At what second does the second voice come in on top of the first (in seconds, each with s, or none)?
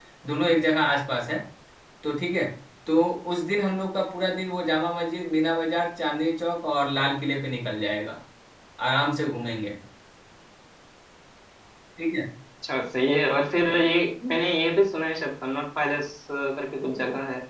none